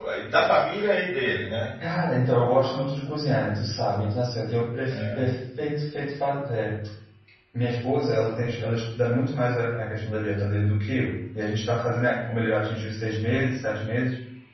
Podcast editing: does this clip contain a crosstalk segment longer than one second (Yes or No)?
No